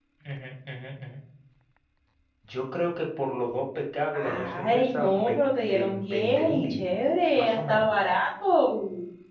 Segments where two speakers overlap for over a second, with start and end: 4.1-6.9

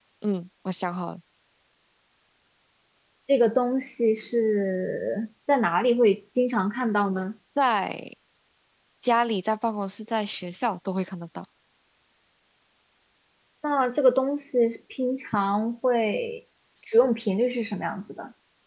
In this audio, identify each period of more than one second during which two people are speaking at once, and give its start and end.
none

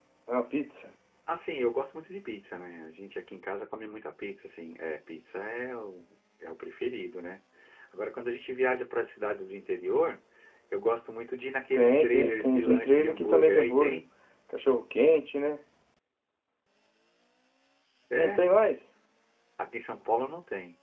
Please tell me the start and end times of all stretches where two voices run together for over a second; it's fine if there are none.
11.7-14.0

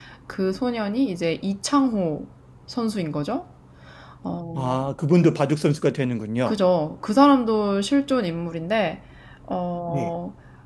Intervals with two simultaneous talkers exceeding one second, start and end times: none

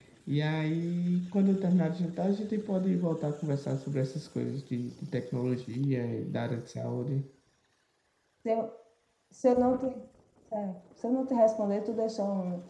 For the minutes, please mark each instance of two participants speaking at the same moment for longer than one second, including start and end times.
none

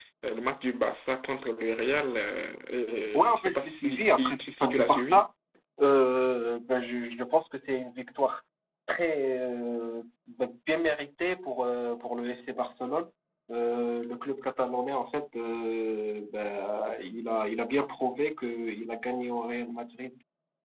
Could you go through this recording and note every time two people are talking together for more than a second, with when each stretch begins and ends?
3.1-5.2

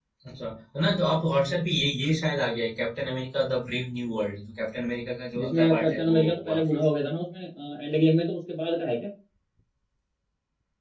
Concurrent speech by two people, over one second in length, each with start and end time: 5.4-6.6

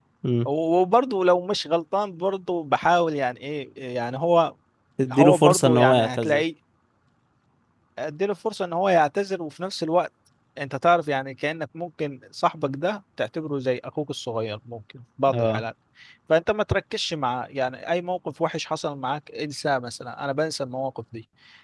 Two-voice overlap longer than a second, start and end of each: 5.1-6.4

